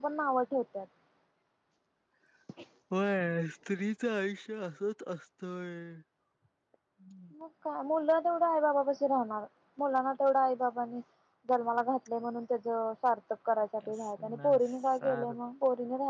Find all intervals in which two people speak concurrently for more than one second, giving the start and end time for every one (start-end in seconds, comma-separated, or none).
13.9-15.3